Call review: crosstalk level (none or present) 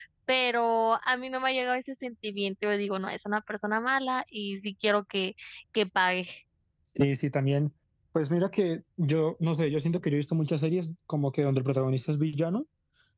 none